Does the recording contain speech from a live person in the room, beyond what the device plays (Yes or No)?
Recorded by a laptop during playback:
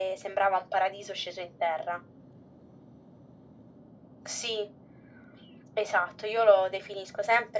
No